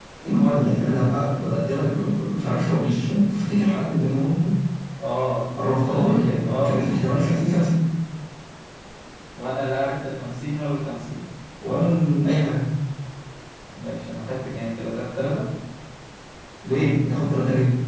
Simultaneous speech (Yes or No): Yes